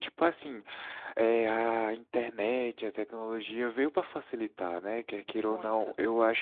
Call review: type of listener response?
listening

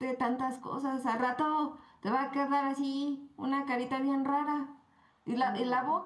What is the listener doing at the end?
listening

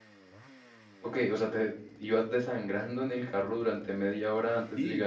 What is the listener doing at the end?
taking over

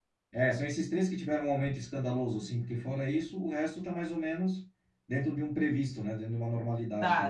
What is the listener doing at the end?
taking over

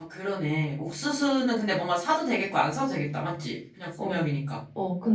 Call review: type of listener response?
taking over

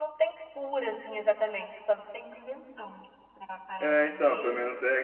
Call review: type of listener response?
taking over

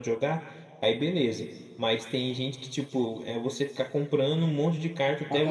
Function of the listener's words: listening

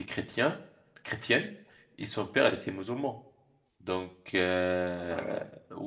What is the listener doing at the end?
listening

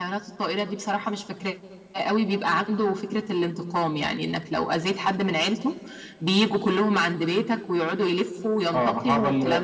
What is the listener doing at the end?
taking over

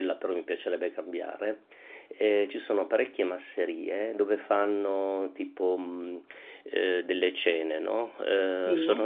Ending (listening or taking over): listening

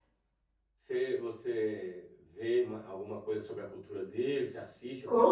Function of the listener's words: taking over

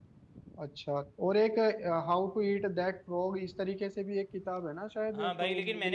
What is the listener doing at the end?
taking over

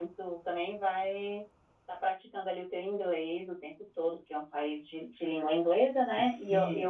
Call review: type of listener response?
taking over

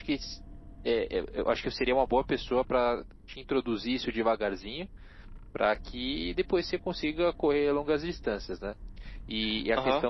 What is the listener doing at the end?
listening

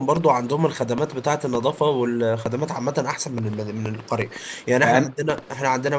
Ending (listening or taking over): listening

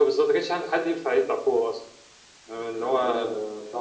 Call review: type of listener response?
taking over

